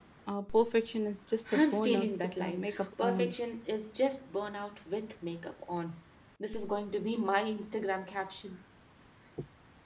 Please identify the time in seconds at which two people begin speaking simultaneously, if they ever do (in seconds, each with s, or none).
1.5 s